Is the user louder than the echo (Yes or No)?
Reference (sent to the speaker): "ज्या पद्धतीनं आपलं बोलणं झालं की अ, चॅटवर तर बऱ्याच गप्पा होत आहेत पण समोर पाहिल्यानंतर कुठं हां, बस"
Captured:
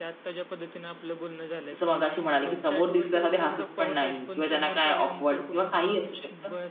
Yes